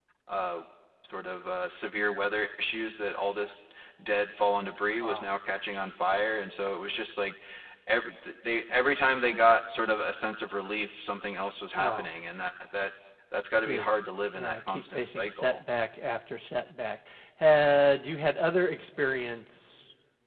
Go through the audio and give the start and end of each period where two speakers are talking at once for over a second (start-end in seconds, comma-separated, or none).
14.3-15.6